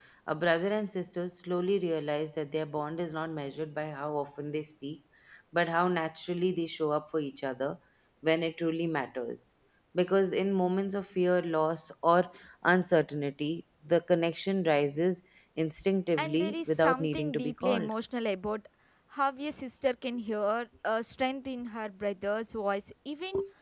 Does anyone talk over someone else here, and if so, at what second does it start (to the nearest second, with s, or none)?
16 s